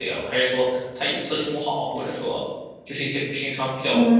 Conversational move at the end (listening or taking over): taking over